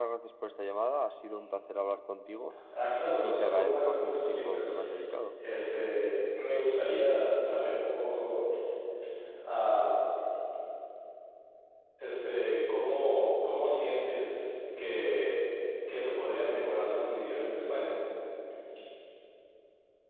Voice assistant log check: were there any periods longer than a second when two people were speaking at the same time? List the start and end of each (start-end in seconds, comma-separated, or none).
3.2-4.8